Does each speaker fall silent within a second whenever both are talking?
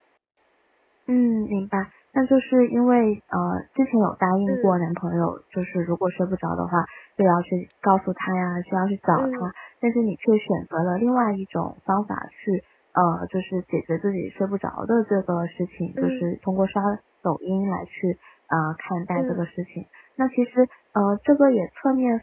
Yes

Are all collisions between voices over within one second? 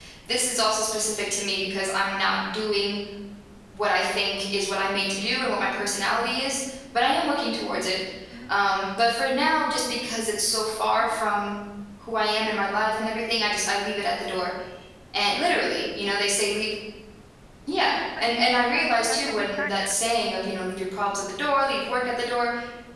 No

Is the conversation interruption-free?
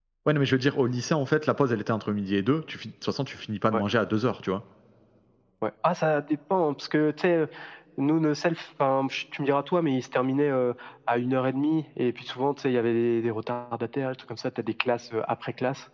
Yes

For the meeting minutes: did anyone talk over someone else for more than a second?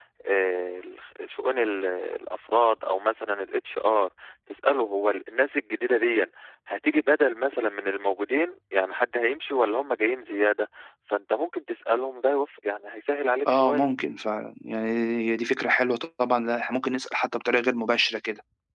No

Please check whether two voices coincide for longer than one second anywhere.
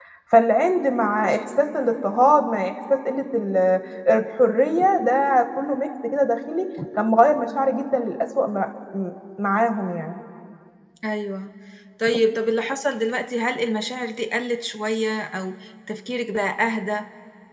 No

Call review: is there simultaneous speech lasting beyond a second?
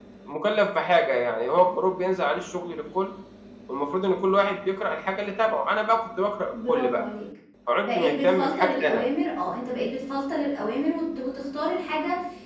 Yes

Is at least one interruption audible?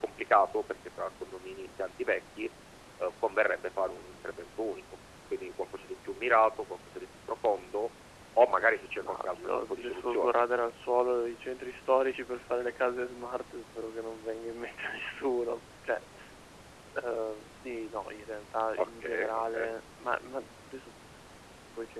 Yes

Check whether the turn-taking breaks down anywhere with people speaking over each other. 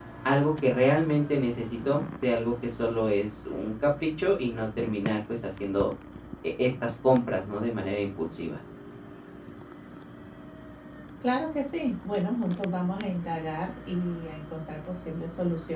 No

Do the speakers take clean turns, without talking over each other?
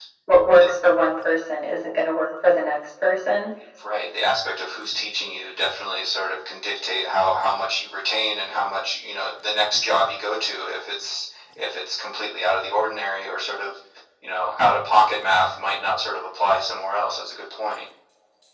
Yes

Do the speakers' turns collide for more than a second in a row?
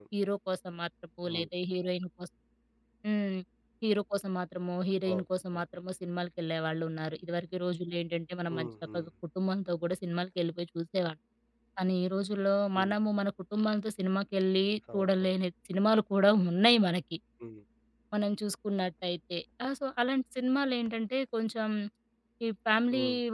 No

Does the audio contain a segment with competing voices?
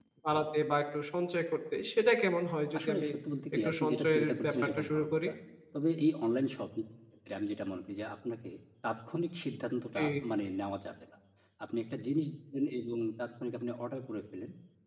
Yes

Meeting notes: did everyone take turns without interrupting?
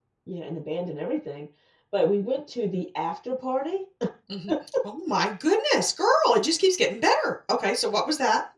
Yes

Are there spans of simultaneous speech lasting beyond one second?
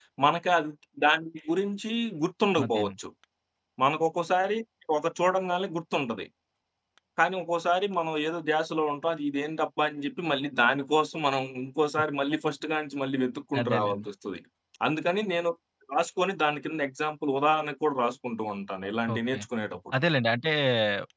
No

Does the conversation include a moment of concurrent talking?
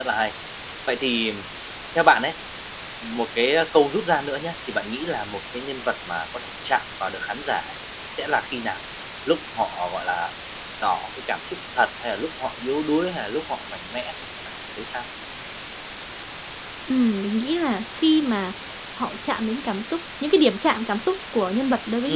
No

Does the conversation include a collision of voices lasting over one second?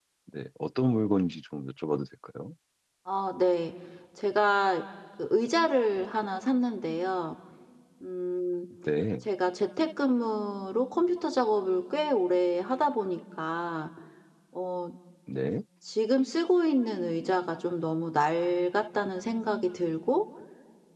No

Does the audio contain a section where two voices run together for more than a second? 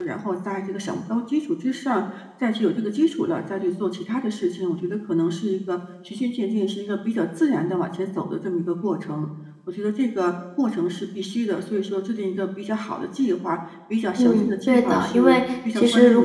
Yes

